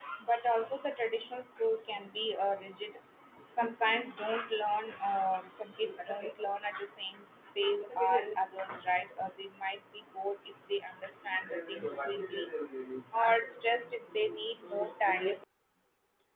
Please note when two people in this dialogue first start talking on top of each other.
none

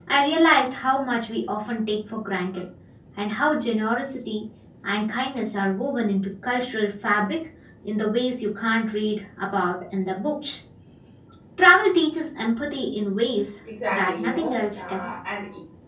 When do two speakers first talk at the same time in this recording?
13.9 s

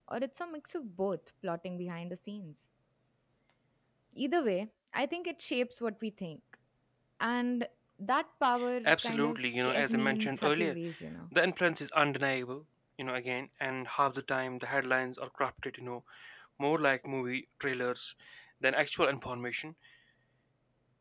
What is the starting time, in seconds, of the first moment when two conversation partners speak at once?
8.8 s

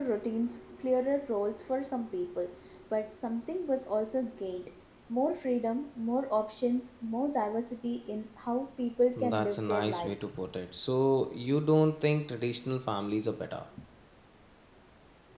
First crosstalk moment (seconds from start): 9.2 s

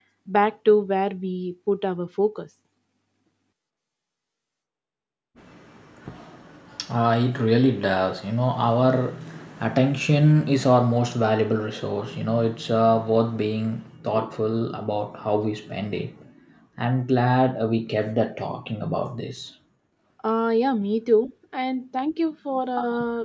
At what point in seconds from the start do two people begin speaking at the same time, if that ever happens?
none

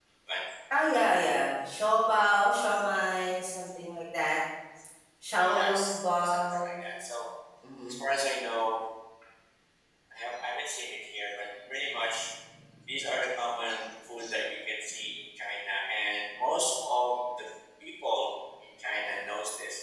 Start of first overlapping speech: 5.5 s

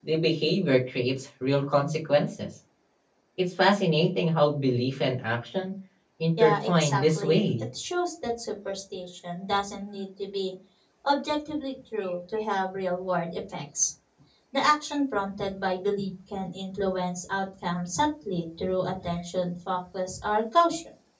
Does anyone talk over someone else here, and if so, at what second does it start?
6.4 s

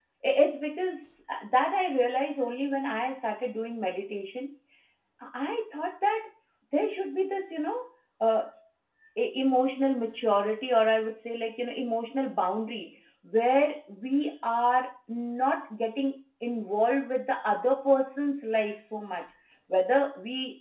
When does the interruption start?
none

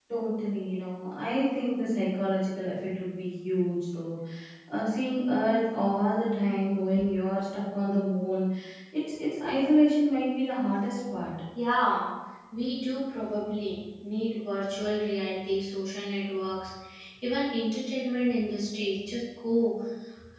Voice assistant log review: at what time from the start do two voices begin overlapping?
none

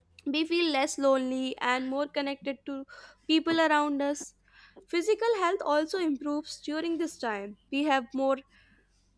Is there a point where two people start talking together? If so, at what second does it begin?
none

